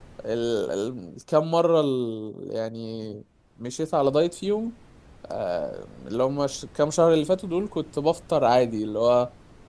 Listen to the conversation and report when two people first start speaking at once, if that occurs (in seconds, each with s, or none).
none